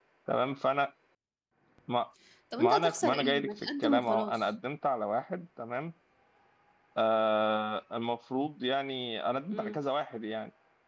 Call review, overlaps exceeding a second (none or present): present